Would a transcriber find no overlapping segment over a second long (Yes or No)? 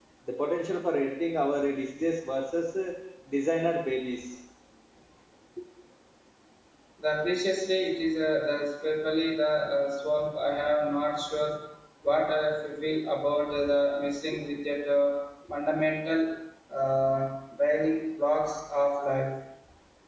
Yes